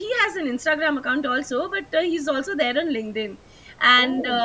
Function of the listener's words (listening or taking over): listening